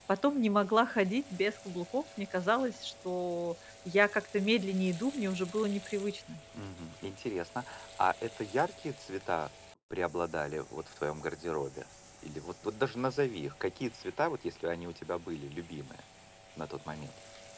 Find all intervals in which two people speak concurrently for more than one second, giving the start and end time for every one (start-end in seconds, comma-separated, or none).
none